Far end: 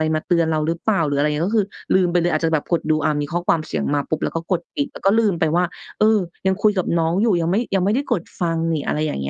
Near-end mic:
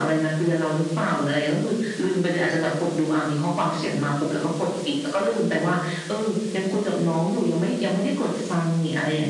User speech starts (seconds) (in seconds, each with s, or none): none